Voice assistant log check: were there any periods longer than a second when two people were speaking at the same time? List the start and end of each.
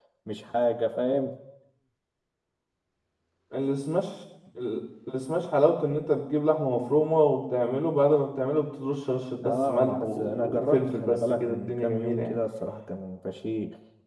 9.4-12.4

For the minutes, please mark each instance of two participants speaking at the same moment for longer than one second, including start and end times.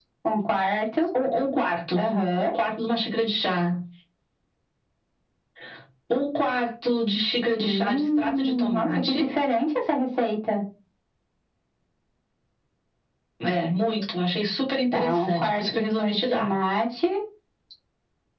7.6-9.3, 14.9-16.5

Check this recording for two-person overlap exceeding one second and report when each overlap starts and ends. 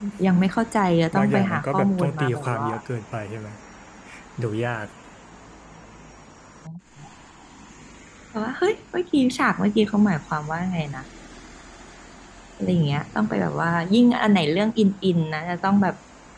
1.1-2.7

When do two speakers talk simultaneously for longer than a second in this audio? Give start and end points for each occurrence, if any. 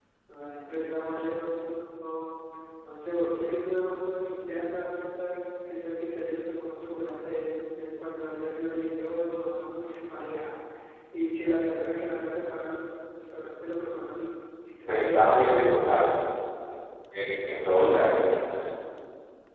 none

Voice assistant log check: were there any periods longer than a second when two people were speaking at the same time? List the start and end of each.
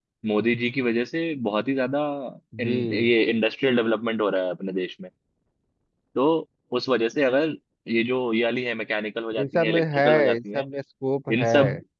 9.4-10.7

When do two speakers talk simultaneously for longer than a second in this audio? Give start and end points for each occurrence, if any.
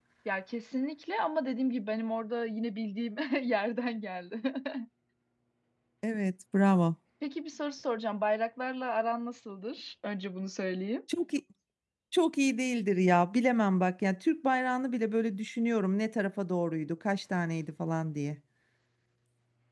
none

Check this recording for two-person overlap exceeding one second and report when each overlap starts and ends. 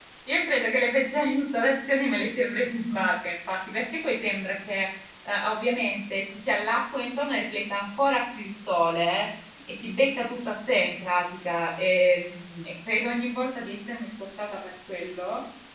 none

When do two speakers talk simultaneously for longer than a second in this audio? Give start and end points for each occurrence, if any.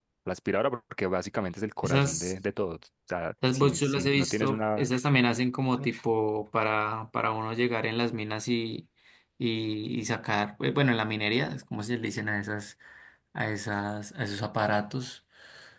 3.5-4.9

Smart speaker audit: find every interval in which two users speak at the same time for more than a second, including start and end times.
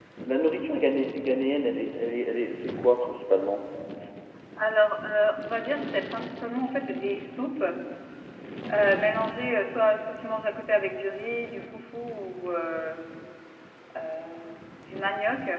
none

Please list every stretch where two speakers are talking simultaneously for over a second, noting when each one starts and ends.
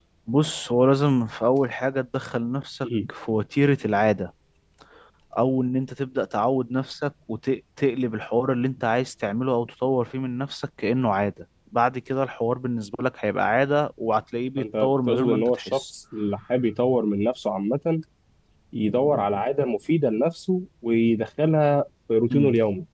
14.6-15.8

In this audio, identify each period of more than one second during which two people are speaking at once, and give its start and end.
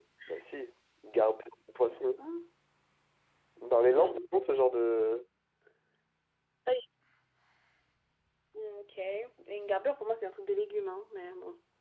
none

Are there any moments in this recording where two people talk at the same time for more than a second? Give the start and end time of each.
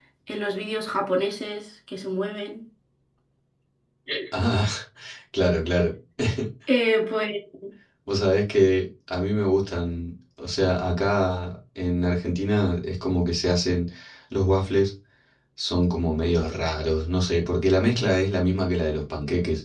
none

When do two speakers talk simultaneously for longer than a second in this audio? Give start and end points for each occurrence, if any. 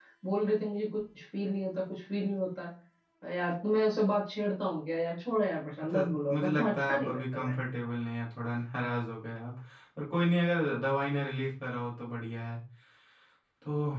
5.8-7.5

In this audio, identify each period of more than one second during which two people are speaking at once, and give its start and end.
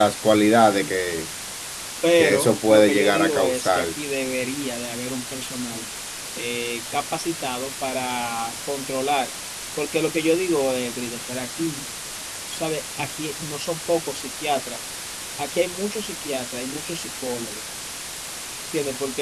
2.1-3.9

